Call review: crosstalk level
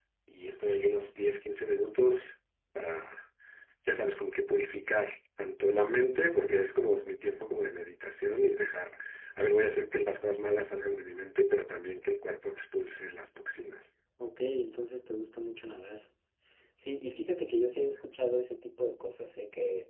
none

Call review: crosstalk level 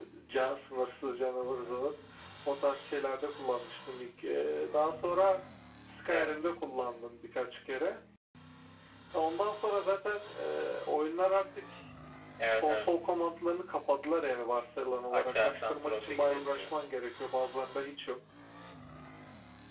present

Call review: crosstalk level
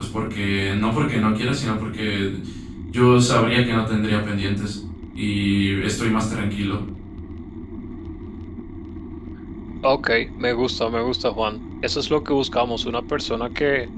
none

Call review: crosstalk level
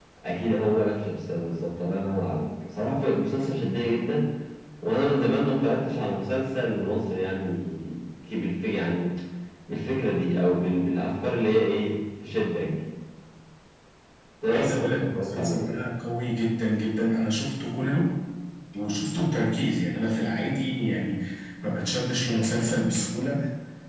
present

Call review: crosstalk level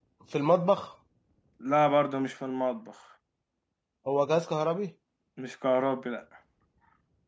none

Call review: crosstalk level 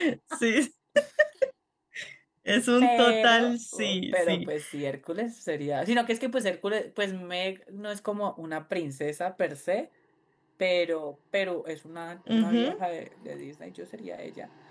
present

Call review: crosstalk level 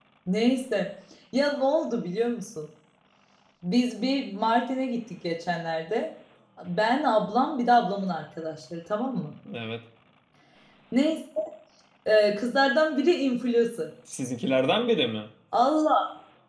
none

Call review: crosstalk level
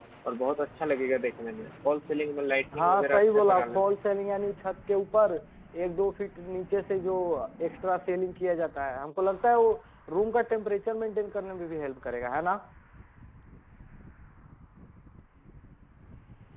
present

